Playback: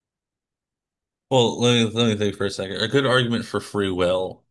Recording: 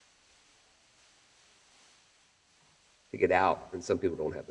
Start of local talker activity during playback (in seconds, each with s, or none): 3.1 s